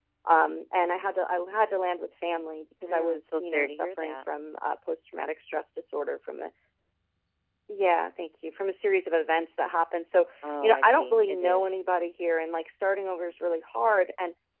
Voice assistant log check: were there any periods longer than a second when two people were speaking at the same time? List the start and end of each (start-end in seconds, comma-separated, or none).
2.9-4.2, 10.6-11.8